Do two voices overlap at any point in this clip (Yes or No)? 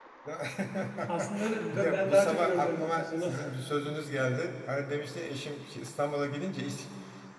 Yes